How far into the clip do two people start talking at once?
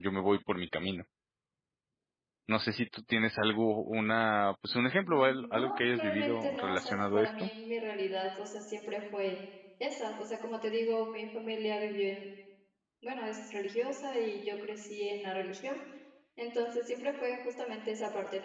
5.0 s

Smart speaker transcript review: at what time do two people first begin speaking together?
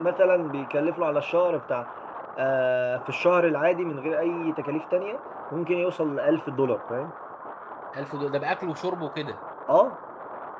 none

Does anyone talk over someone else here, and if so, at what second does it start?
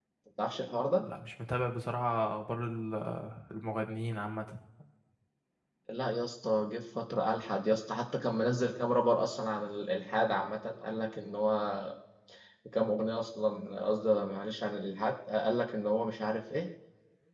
none

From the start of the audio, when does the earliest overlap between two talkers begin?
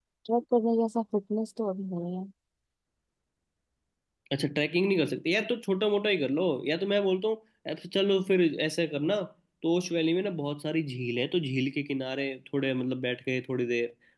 none

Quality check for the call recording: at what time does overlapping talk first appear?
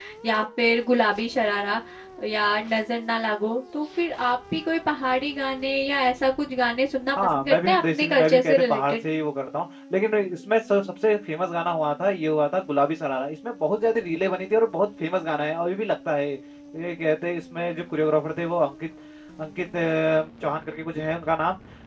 7.2 s

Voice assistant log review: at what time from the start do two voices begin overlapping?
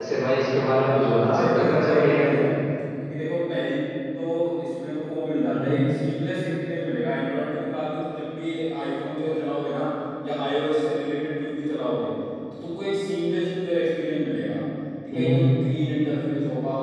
0.8 s

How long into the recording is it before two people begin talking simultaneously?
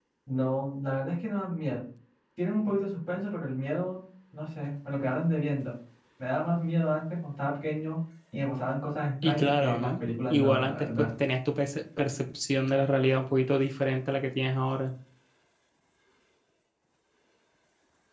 9.2 s

